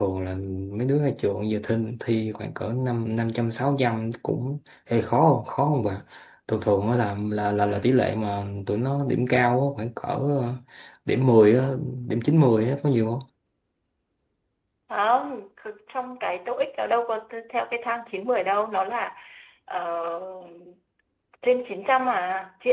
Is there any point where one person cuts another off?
No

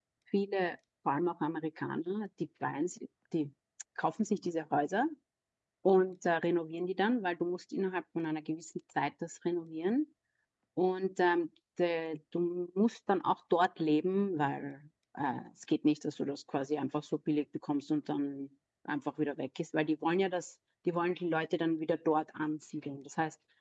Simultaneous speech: No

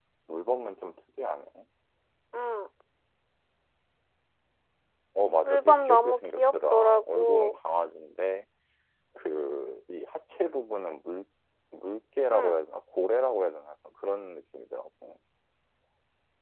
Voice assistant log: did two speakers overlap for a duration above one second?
Yes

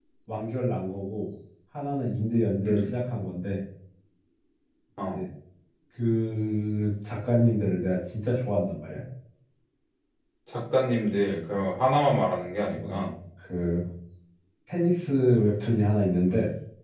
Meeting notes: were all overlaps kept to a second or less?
Yes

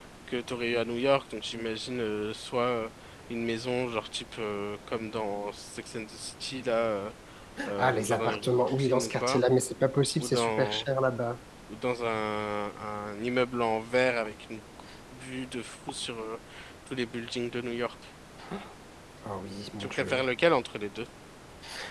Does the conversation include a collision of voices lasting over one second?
Yes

